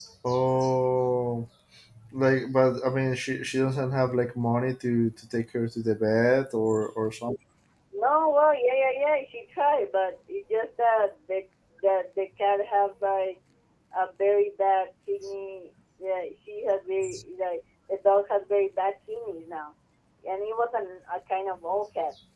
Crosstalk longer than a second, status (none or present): none